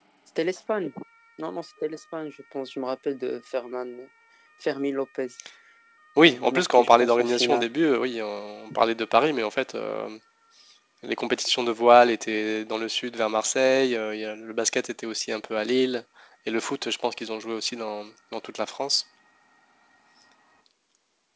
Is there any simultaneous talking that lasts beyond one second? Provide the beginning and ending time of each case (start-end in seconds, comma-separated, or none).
6.2-7.7